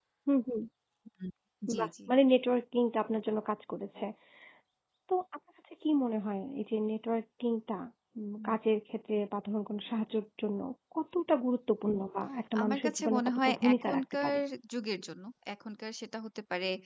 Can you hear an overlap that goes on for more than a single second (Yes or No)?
Yes